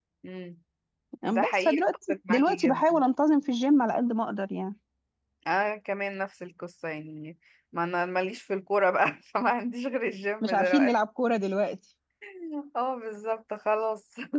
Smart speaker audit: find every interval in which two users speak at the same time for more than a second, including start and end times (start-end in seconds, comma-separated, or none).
1.3-3.0